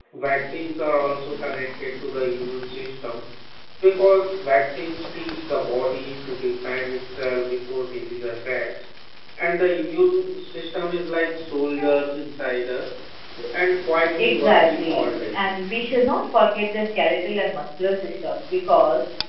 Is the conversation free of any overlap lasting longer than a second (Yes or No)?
No